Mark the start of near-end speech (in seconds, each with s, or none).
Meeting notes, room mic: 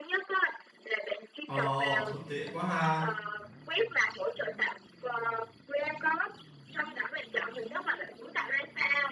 1.4 s